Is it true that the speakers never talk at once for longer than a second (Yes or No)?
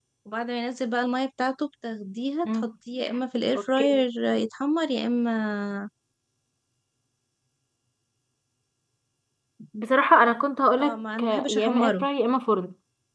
No